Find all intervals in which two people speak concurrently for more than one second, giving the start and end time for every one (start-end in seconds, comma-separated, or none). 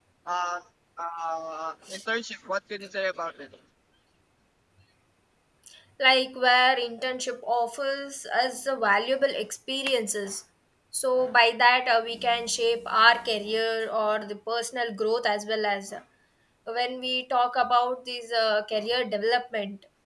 none